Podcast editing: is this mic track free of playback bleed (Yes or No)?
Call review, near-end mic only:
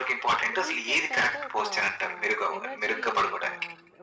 No